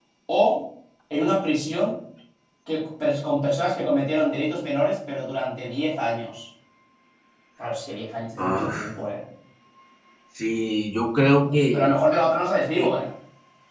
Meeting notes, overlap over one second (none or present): none